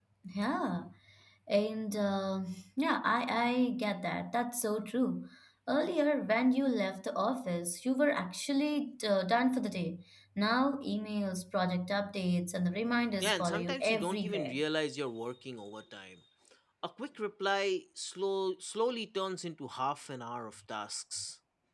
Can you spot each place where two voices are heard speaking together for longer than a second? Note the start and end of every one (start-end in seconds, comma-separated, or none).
13.2-14.6